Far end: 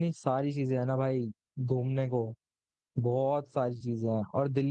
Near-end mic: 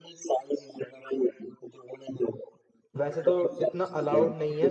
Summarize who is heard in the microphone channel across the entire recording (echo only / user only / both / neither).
both